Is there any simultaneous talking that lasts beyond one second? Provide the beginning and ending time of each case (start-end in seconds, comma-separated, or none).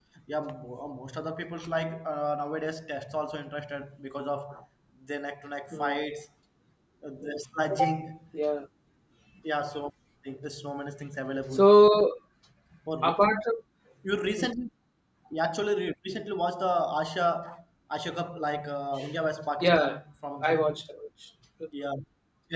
none